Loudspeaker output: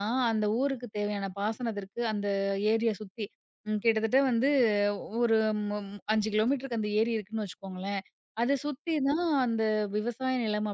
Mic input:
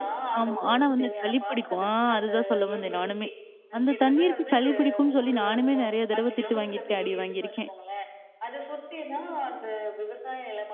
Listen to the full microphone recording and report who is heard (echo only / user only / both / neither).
both